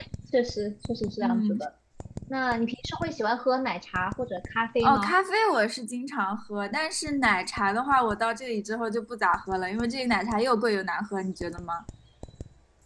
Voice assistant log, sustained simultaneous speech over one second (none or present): none